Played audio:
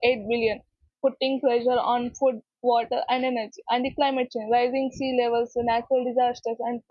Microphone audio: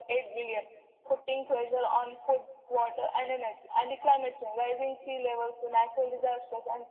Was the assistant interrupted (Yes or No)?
No